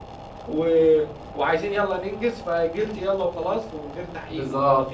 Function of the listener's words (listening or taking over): taking over